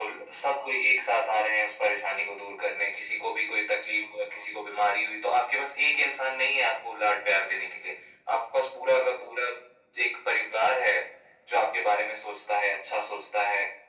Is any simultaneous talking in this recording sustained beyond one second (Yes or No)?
No